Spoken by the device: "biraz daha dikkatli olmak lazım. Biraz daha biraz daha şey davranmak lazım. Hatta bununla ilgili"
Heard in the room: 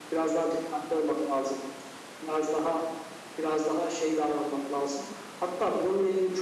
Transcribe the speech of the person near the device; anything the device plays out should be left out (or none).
none